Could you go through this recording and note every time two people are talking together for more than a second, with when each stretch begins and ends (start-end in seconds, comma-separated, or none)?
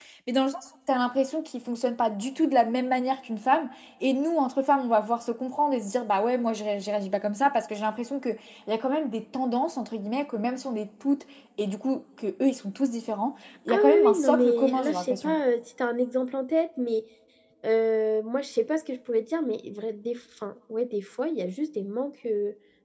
13.7-15.3